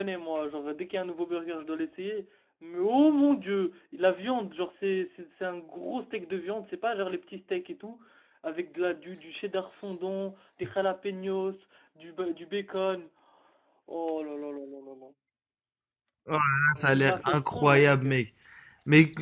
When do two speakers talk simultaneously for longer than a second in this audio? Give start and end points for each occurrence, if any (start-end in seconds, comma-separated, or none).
16.9-18.2